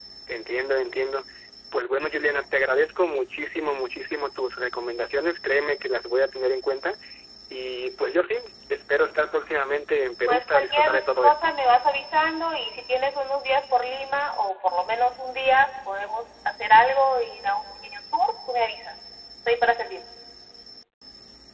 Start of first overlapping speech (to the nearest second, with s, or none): 10 s